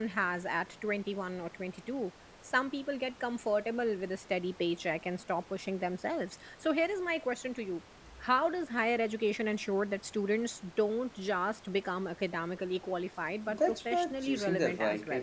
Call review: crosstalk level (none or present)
present